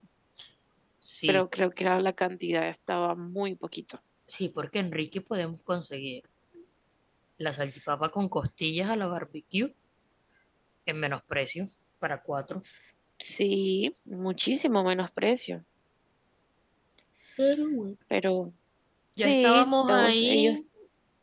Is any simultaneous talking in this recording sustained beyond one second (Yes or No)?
Yes